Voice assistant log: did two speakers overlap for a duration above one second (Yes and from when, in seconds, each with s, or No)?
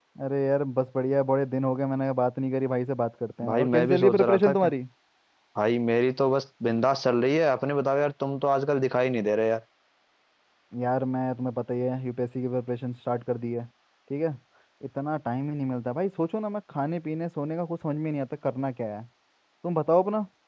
Yes, from 3.4 s